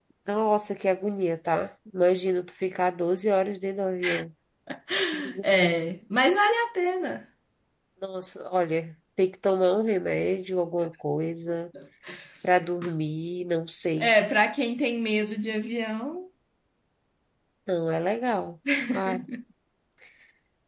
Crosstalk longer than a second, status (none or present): none